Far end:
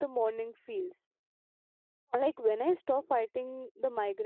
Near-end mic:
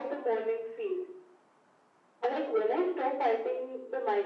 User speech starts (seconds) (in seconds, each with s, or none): none